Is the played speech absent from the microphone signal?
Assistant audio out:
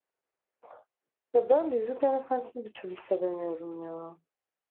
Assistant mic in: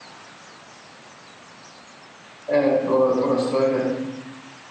Yes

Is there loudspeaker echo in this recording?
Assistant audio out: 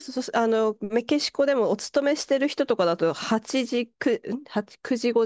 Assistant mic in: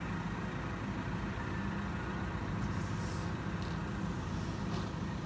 No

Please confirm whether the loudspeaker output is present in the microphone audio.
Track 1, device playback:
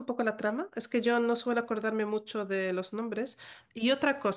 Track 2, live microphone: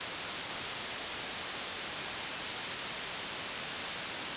No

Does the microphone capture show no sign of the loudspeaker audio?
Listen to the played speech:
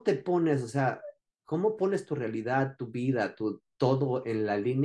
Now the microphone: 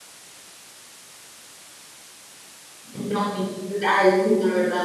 Yes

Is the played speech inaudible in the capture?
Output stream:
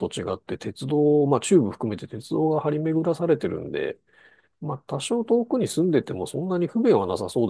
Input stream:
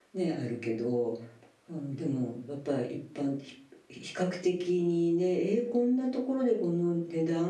Yes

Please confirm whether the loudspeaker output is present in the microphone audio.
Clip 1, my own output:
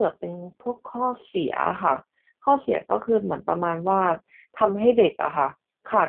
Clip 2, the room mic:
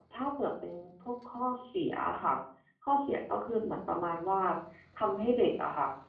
Yes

